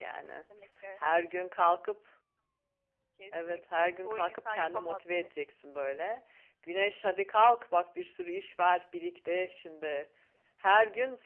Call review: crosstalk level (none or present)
present